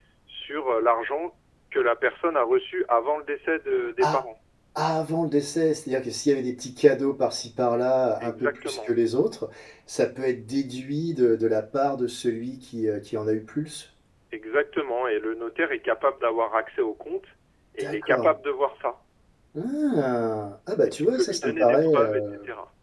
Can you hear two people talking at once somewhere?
Yes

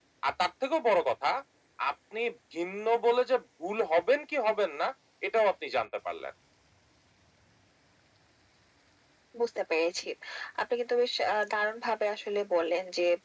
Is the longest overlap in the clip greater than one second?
No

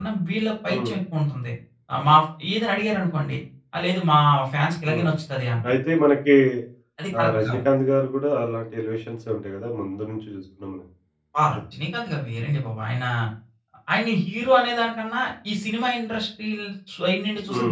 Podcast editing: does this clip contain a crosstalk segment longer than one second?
No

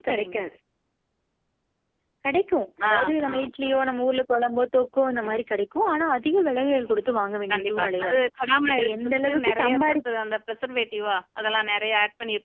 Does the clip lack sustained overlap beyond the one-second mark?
No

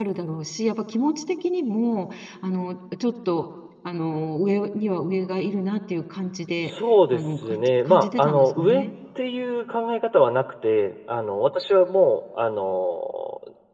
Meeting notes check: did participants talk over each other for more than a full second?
Yes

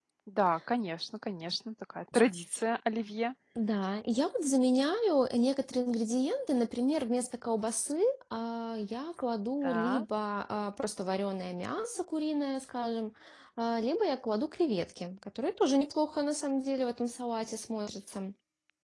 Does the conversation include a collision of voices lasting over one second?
No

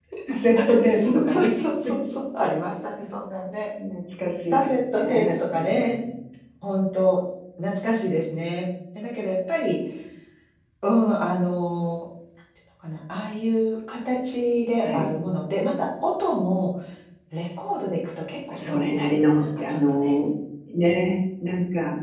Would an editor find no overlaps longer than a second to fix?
No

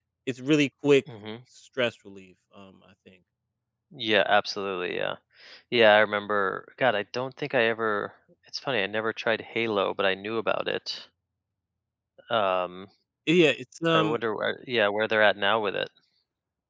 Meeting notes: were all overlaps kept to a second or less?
Yes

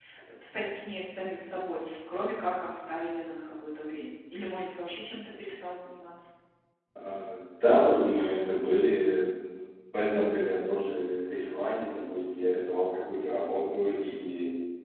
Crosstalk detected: No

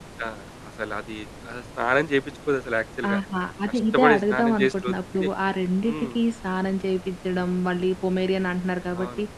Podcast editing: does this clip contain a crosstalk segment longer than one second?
Yes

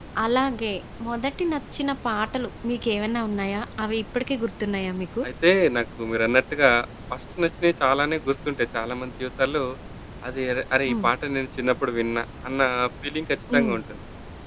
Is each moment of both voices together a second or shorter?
Yes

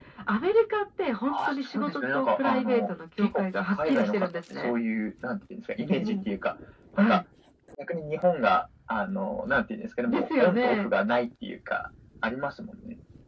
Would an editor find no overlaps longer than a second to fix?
No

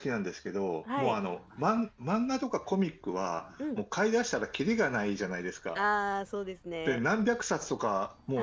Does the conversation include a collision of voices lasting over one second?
No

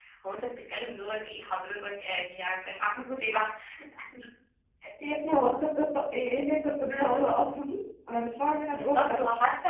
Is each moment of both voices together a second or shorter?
Yes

